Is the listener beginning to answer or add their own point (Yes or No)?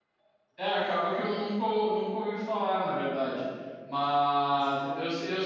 No